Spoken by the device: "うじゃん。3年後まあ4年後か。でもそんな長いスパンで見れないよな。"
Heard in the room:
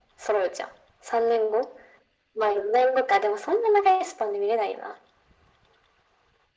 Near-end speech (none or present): none